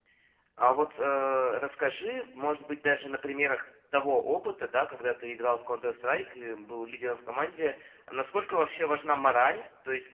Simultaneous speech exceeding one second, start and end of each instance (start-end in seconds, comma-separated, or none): none